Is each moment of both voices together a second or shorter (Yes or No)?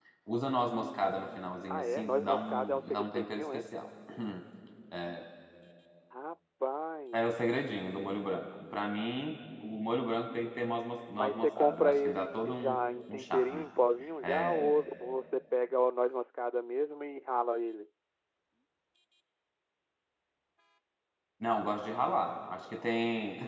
No